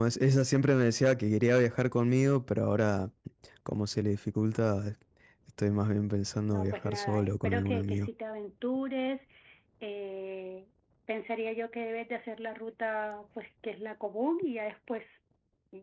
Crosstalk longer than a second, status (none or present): present